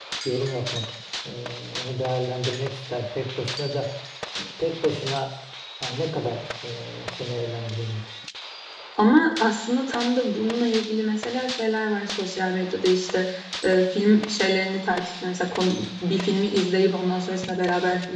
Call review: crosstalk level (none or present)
none